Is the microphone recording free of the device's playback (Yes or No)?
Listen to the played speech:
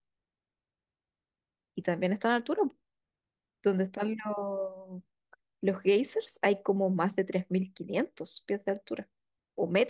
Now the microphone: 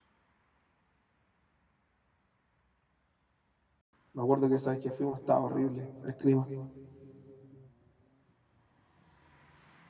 Yes